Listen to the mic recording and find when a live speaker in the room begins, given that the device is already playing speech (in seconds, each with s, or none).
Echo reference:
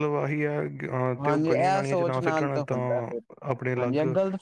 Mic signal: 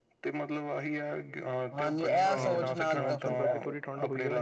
2.3 s